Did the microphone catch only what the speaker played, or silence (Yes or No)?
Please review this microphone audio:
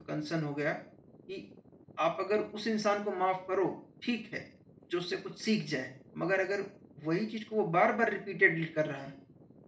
No